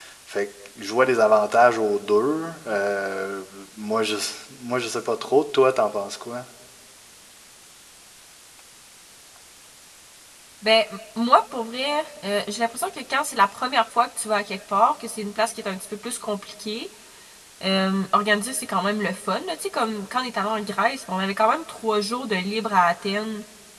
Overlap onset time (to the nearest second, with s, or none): none